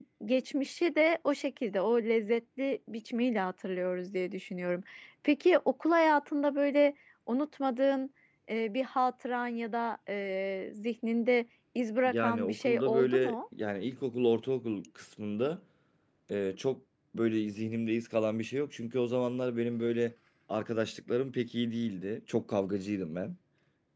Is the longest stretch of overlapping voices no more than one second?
No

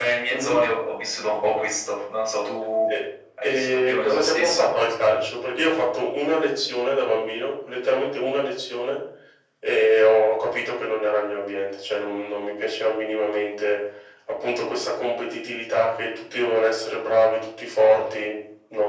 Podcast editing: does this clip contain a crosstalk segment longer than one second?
Yes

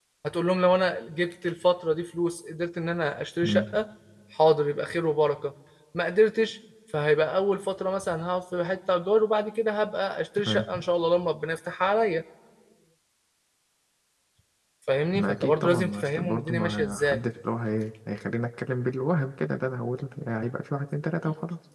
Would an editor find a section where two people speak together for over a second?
Yes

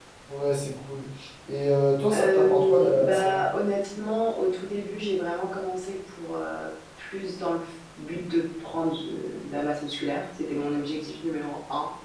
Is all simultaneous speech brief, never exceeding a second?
No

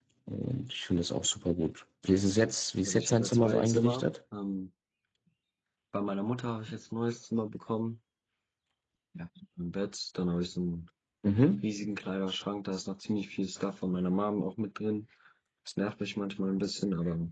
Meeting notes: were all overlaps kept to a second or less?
No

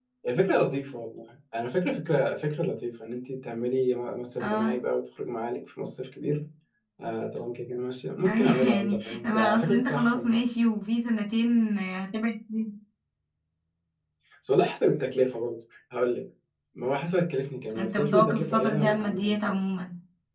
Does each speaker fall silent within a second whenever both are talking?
No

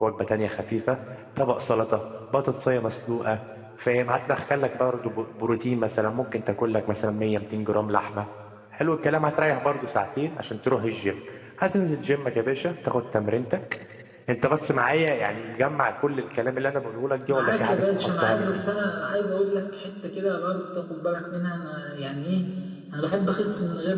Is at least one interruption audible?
Yes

